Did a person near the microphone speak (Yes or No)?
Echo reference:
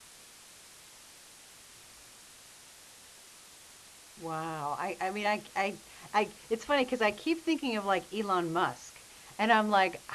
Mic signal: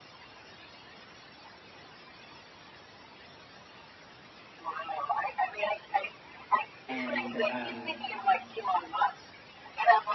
Yes